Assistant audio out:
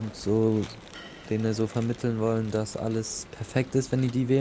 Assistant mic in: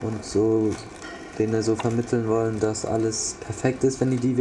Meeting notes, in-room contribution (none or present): none